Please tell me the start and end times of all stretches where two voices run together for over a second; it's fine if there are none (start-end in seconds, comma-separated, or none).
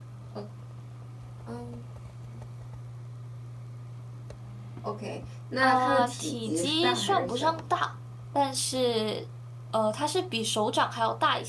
5.6-7.6